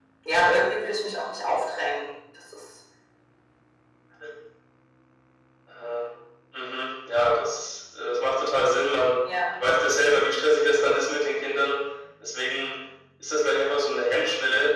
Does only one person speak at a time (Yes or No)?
Yes